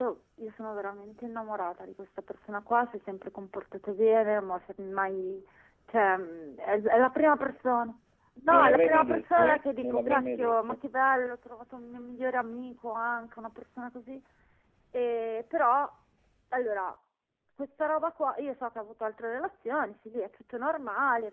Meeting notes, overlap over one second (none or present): present